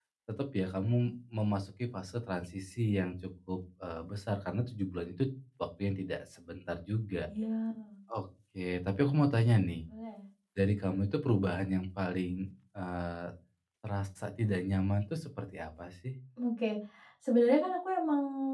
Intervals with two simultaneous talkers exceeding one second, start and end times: none

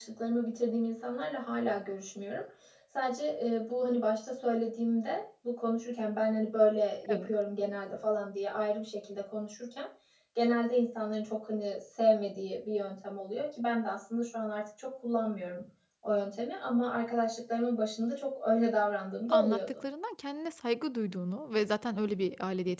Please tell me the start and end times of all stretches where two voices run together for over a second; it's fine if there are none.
none

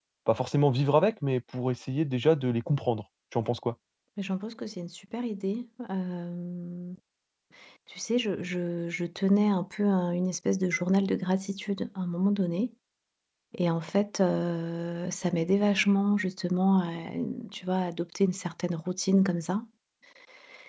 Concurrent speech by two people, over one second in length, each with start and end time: none

